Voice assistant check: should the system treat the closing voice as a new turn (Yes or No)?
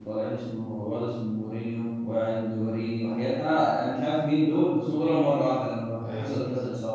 No